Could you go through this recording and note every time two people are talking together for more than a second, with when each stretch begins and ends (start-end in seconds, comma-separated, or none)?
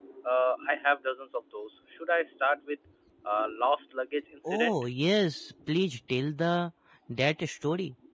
none